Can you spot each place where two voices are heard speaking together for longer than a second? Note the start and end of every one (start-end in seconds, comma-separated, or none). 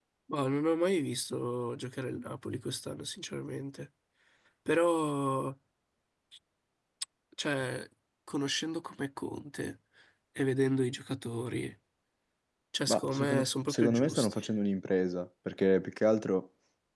12.9-14.4